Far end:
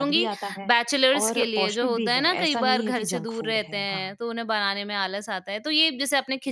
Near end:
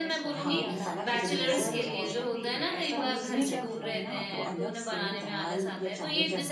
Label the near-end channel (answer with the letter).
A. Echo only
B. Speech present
B